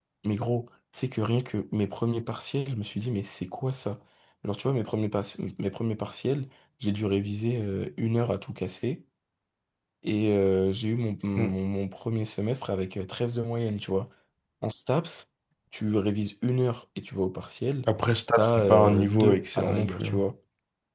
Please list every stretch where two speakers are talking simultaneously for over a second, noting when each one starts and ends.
18.4-20.2

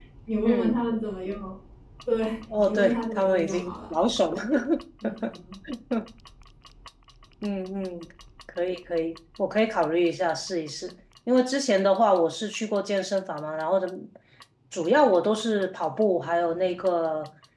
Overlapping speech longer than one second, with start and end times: 2.7-3.9

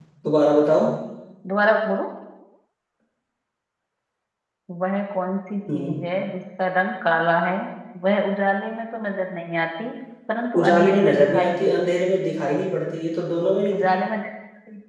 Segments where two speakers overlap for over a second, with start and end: 10.6-11.9

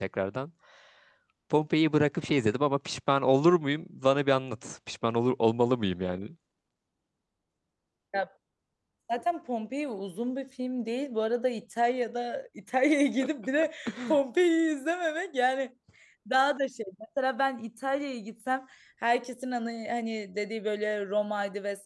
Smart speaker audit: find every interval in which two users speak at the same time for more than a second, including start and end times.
none

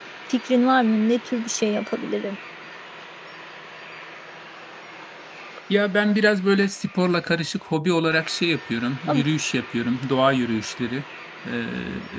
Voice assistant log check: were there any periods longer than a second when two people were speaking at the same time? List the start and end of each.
none

